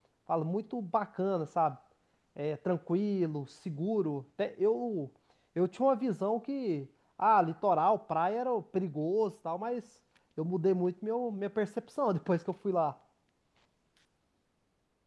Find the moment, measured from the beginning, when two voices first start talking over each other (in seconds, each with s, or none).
none